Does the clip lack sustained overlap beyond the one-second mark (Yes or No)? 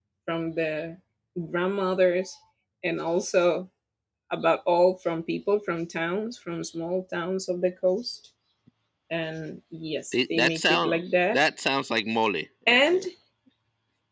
No